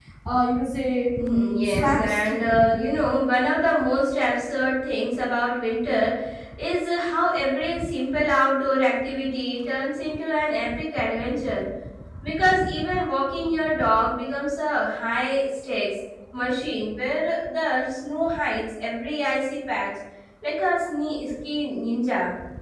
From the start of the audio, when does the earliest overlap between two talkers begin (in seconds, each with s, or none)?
1.2 s